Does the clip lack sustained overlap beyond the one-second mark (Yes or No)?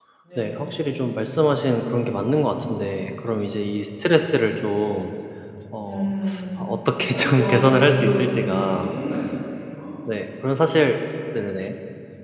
No